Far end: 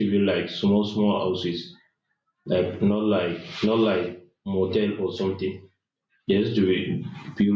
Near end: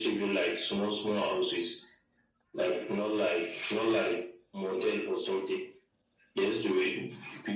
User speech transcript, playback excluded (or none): none